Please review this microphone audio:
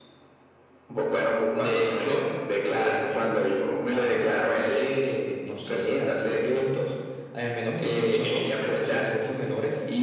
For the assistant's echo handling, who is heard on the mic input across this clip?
echo only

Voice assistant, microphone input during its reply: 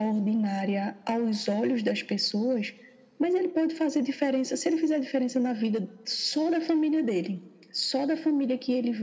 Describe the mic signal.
echo only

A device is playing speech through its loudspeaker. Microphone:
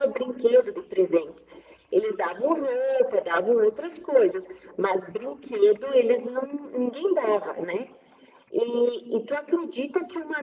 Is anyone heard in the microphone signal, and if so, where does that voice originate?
echo only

